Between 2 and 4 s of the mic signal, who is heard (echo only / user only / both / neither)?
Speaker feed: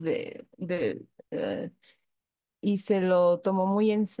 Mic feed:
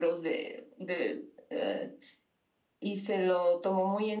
echo only